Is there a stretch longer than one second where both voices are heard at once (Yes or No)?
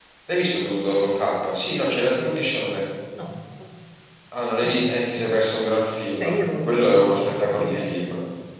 Yes